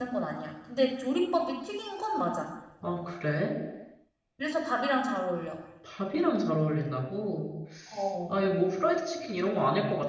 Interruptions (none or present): none